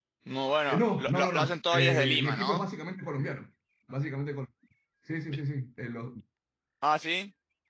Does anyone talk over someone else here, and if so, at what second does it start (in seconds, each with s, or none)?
0.7 s